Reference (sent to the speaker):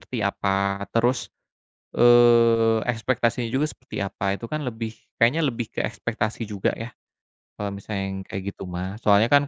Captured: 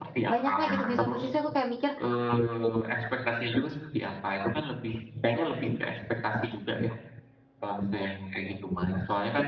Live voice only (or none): banyak lah gitu, di satu sisi aku kayak mikir,